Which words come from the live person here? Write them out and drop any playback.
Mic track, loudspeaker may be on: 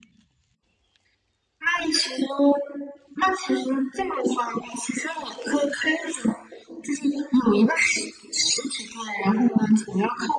none

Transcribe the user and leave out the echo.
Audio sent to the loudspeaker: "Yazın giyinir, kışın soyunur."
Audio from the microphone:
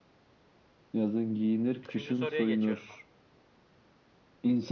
Üçüncü soruya geçiyorum abi.

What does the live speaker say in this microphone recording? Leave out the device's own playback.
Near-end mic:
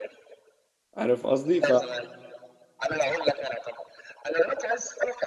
عارف قصدي ف...

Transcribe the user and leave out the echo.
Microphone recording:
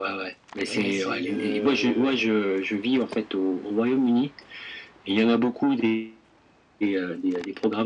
et- mais c'est... euh,

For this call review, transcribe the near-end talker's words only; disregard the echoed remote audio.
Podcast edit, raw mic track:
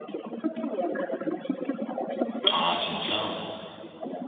아, 진짜?

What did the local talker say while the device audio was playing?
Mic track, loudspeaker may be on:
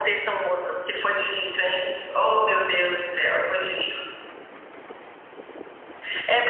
none

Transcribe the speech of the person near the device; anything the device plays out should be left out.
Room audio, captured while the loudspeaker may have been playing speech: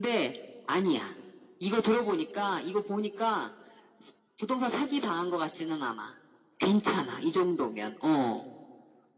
none

